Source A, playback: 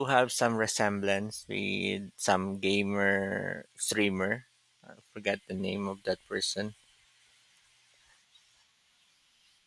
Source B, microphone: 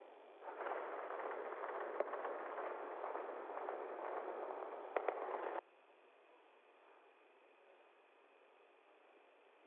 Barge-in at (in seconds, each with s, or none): none